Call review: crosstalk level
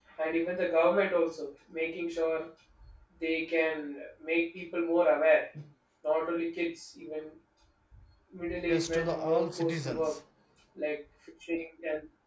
present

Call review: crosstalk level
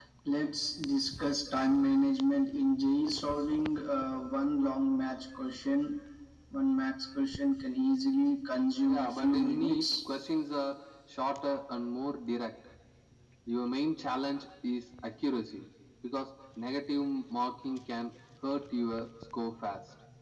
present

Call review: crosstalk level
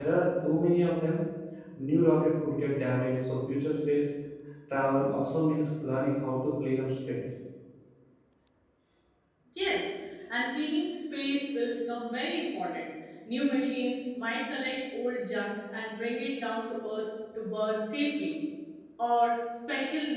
none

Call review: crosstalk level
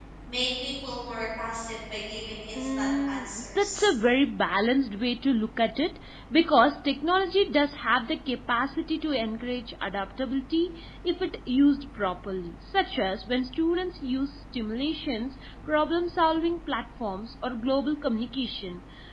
present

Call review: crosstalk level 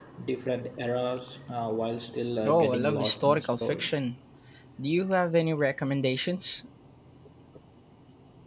present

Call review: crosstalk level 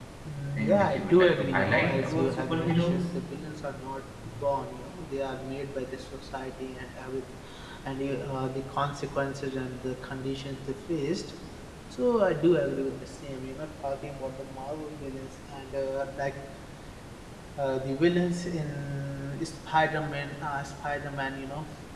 present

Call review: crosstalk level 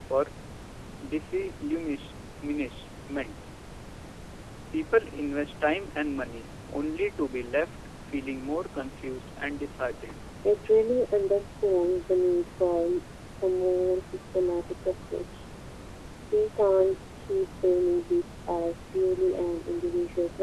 none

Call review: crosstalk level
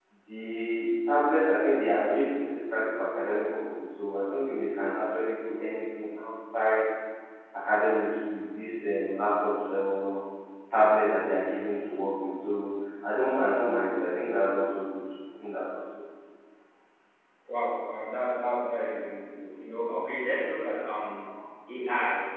none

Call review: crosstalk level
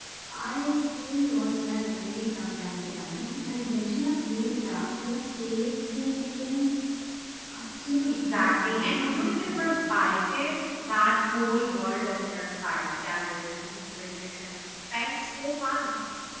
present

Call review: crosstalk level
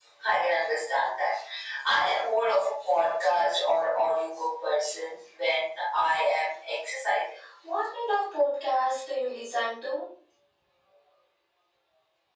none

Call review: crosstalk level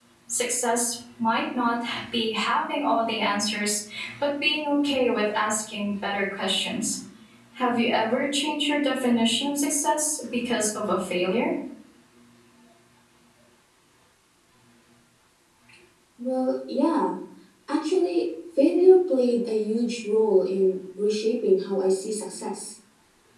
none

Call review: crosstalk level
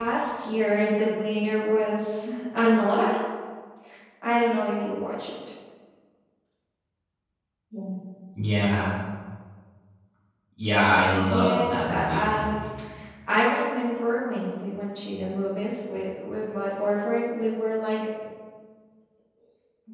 present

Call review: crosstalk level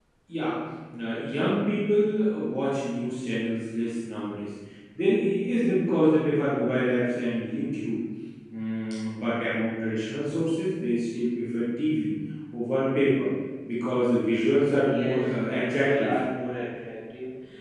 present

